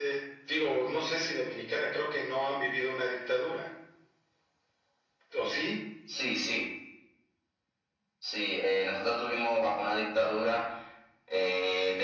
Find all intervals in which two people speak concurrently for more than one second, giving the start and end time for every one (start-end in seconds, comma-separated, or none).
none